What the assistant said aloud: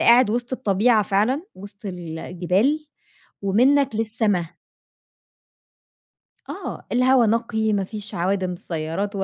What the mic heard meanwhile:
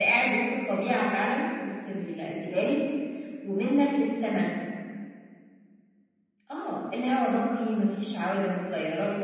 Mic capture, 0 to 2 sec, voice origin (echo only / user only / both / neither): echo only